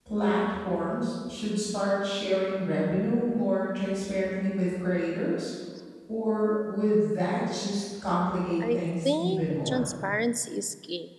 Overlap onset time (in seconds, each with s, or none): 8.6 s